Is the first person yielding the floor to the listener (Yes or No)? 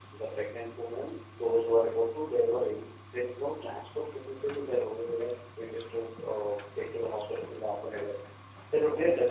No